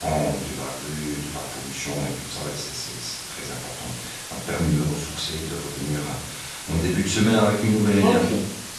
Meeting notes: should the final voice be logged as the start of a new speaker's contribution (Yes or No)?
Yes